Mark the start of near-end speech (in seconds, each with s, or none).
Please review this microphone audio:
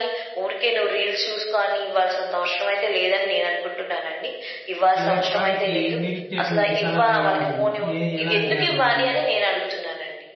5.0 s